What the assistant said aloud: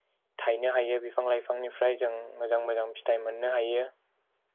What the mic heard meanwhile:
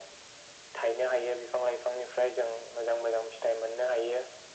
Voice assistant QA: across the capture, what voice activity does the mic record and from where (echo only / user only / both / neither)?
echo only